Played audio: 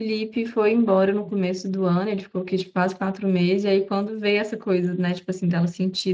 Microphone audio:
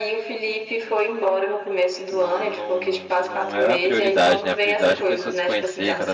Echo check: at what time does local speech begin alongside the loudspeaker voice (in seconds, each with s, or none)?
2.1 s